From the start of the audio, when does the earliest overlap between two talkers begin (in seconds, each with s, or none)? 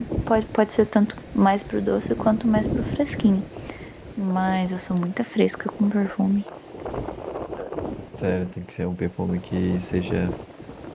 none